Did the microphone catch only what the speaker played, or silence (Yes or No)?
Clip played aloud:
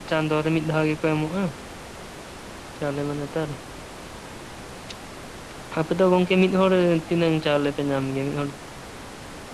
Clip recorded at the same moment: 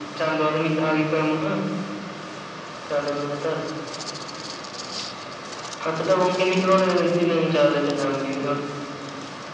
Yes